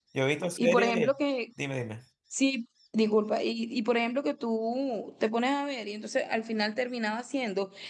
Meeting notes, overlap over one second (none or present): none